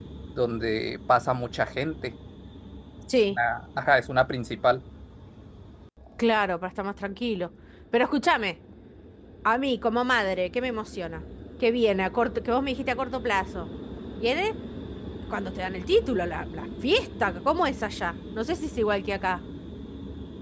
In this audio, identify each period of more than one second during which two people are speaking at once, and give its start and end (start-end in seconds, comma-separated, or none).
none